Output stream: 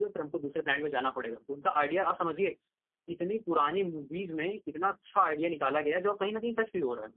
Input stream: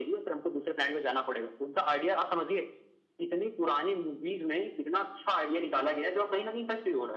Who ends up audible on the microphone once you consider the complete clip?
echo only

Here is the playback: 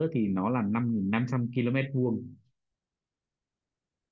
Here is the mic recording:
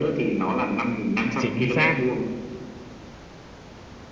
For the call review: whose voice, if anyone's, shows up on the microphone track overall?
both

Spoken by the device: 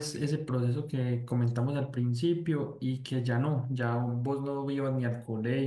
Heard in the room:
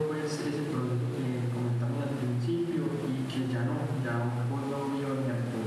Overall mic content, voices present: echo only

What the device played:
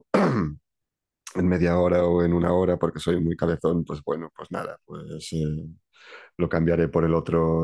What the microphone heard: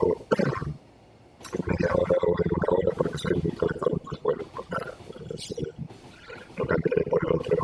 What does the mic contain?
echo only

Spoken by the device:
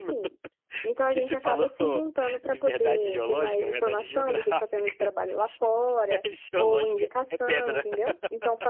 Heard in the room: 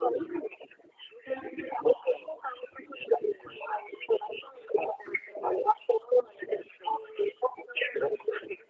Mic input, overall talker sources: echo only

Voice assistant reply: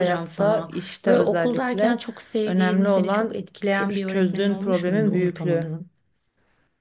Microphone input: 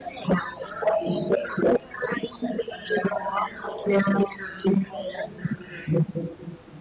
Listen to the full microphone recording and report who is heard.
echo only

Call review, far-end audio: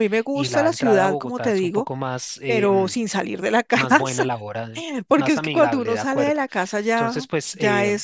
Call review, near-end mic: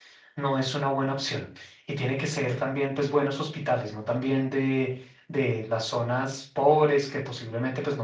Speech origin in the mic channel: user only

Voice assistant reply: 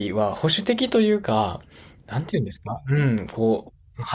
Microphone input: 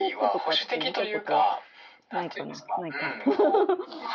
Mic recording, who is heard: both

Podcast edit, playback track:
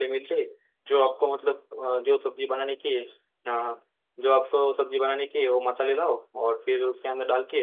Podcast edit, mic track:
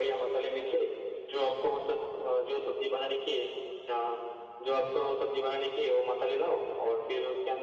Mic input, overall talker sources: echo only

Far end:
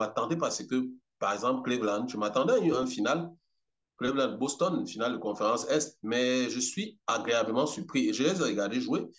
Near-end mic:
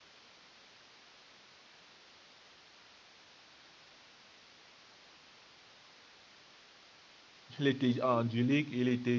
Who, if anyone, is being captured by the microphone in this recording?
user only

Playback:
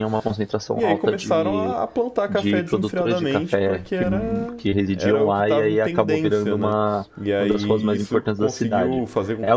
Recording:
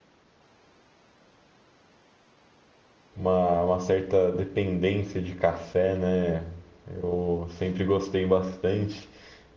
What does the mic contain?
user only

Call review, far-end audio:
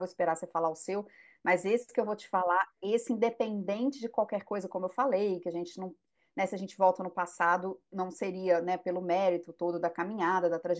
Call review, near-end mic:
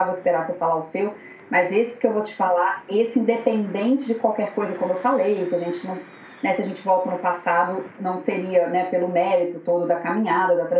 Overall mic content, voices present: echo only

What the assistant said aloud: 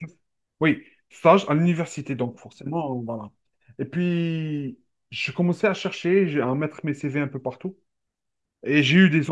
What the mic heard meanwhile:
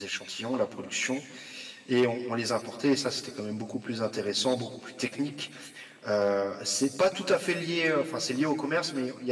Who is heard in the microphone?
user only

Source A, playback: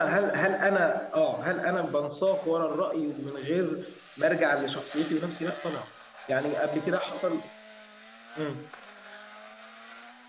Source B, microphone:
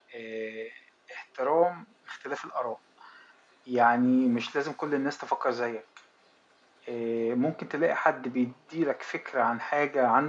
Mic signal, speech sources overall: user only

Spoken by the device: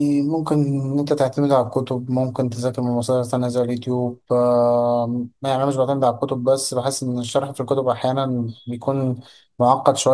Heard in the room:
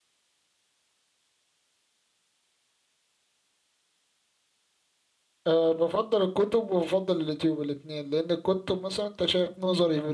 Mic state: user only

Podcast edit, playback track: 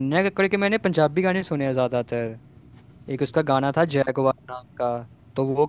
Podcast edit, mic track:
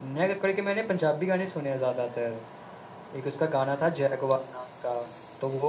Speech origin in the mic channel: echo only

